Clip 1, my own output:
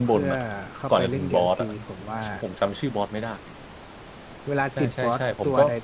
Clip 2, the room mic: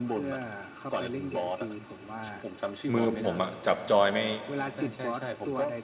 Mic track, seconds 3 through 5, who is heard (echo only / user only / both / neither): both